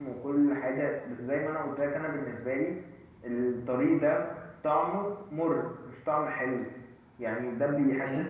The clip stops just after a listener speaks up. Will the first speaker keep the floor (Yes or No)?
Yes